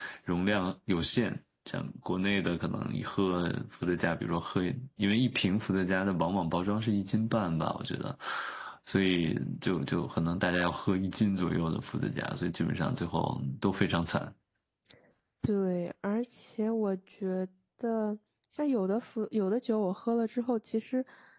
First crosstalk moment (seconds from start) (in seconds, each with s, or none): none